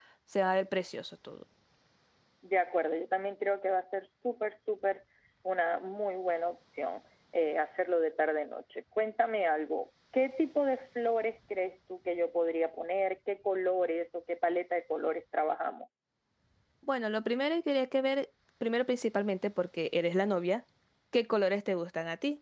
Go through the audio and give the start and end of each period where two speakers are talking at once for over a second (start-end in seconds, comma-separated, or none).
none